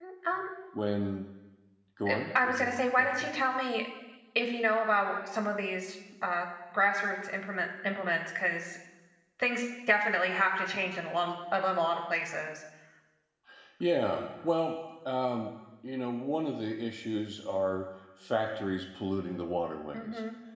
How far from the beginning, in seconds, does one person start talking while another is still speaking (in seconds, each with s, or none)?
2.1 s